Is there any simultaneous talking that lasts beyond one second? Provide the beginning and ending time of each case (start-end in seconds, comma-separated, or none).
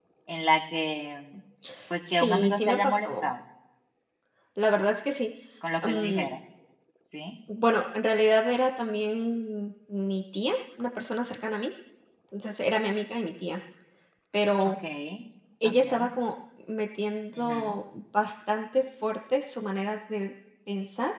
2.1-3.3